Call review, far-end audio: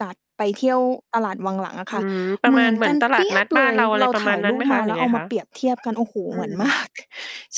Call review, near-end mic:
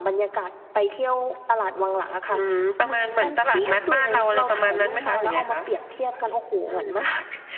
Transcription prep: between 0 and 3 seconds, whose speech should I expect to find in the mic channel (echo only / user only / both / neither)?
echo only